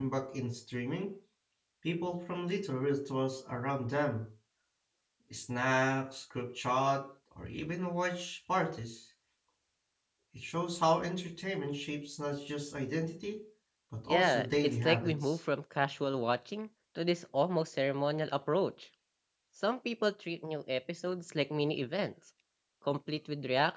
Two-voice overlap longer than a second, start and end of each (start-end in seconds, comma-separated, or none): 14.1-15.3